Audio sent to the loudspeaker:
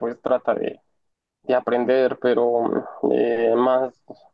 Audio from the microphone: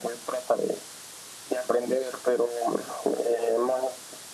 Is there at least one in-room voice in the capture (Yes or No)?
No